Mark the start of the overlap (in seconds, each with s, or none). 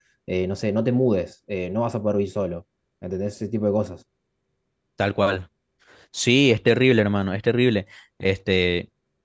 none